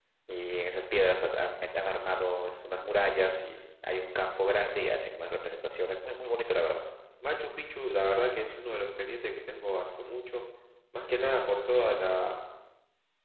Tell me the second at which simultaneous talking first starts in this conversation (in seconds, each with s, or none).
none